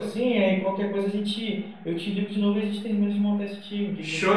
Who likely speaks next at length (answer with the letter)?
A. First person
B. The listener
B